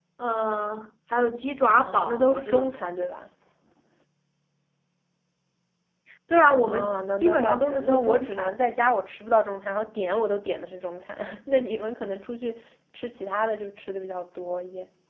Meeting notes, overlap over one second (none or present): present